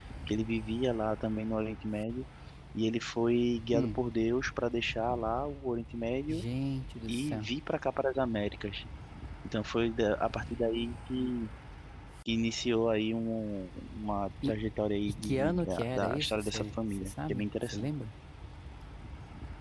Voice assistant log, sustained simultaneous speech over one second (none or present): present